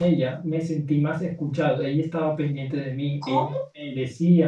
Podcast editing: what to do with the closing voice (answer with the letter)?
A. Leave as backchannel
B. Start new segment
A